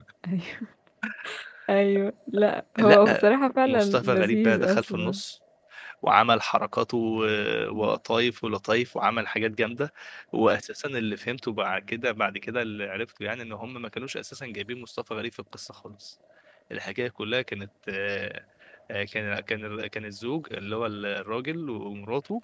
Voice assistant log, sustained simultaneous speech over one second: present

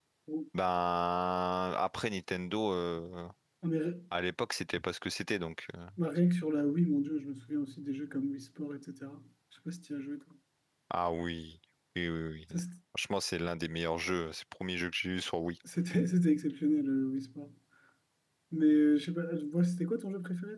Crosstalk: none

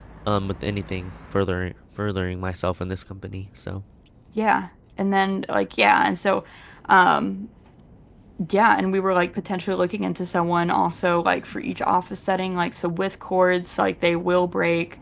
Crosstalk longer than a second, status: none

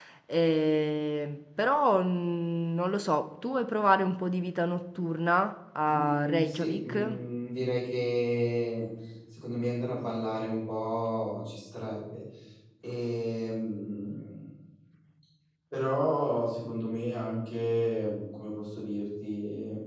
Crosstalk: present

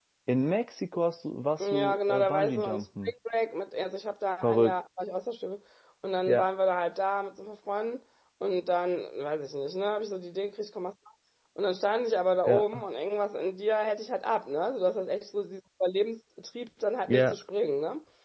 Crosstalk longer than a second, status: present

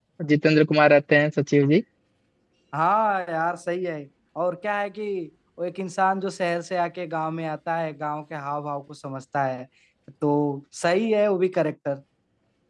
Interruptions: none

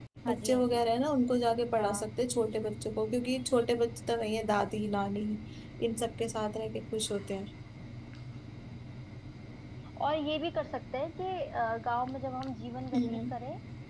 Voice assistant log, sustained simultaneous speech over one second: none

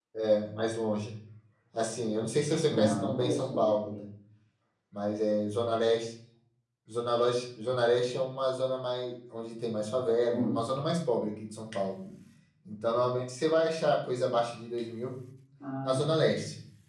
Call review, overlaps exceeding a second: present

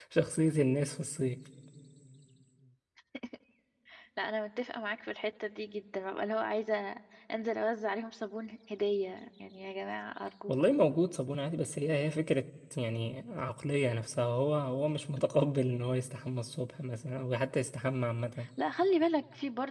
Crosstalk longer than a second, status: none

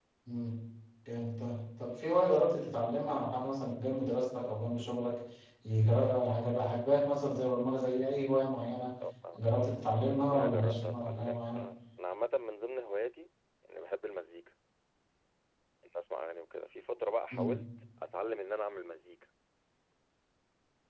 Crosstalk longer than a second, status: present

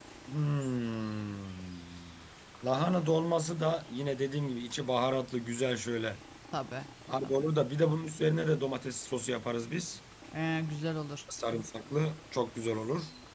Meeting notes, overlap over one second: none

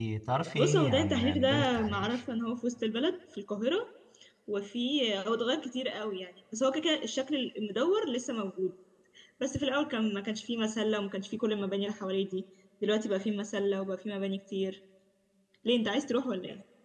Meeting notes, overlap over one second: present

